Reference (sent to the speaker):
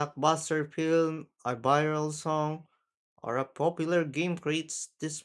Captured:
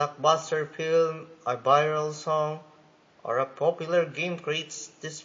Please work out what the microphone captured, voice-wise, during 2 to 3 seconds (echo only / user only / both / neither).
echo only